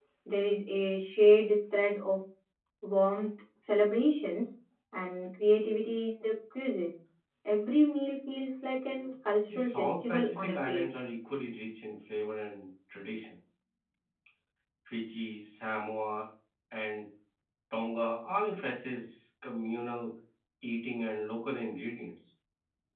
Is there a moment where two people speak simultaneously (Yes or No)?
Yes